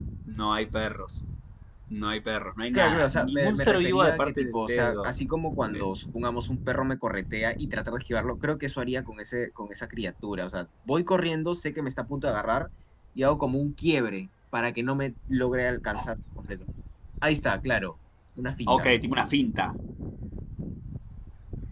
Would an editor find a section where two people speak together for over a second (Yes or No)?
Yes